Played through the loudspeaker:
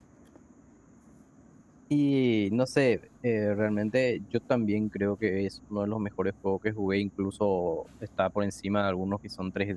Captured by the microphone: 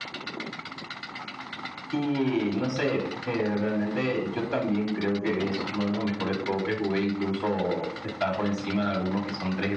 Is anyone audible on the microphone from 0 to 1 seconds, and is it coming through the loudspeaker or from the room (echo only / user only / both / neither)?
neither